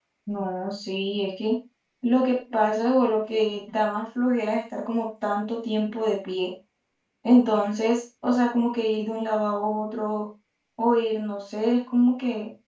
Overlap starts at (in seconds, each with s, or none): none